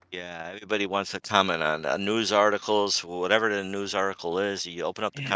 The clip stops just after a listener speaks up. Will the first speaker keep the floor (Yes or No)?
No